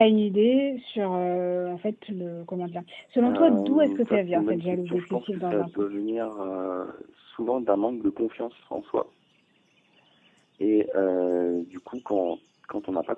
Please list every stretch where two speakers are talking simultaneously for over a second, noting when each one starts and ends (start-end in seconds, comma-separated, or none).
3.2-5.7